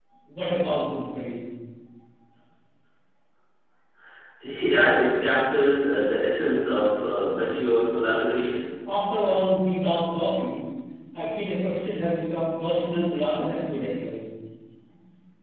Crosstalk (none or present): none